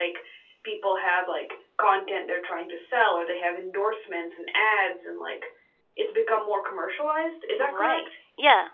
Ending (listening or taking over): taking over